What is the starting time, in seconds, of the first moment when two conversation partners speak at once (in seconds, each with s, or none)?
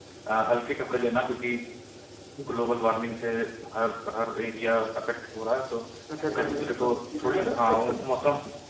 6.3 s